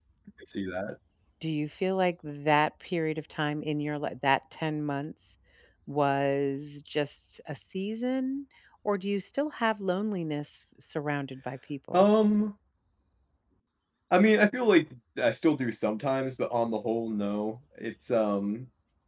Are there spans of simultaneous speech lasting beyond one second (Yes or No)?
No